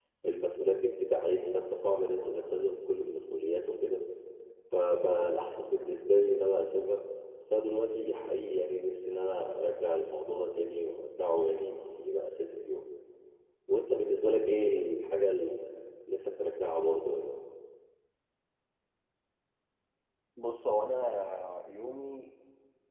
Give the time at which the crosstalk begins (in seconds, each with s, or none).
none